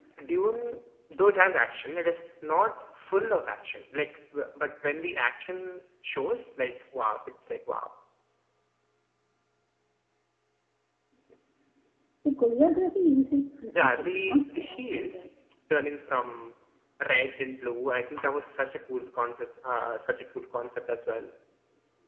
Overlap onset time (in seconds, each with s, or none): 13.8 s